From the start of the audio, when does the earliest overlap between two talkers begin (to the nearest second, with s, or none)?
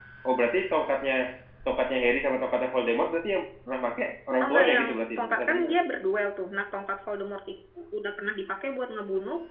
4 s